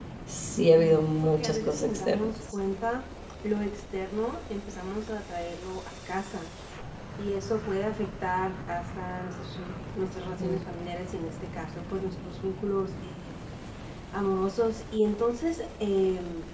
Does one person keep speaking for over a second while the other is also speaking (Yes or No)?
Yes